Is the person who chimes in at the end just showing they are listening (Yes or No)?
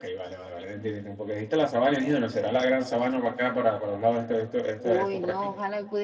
No